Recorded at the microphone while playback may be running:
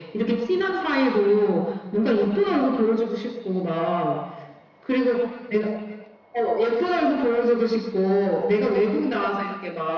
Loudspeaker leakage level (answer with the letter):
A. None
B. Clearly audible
B